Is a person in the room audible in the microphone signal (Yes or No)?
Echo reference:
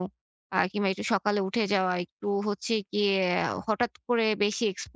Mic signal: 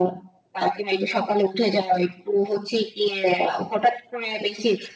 No